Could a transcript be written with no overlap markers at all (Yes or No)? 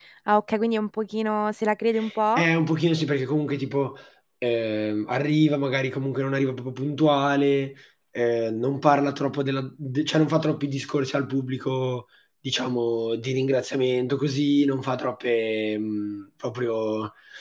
Yes